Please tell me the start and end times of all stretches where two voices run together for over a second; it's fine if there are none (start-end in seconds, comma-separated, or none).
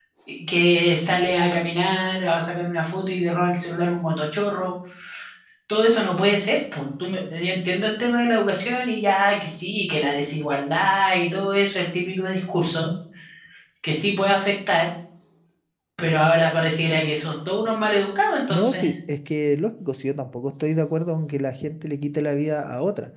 none